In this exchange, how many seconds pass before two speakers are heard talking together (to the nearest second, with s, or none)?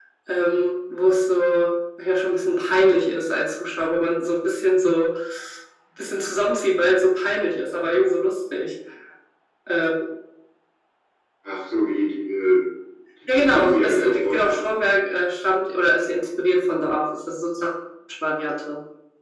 13 s